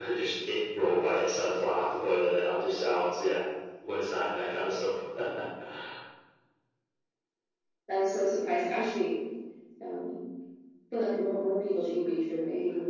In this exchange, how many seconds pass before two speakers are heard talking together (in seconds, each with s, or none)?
none